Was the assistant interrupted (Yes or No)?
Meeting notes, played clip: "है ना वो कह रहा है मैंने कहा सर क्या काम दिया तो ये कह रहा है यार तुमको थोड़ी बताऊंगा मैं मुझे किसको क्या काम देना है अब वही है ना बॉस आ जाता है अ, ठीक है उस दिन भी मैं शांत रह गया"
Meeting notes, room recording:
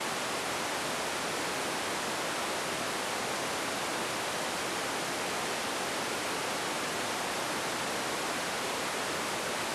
No